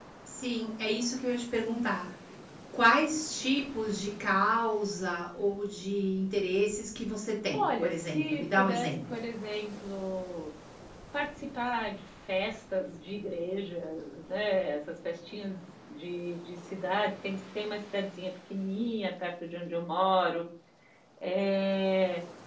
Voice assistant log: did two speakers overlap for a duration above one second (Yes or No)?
Yes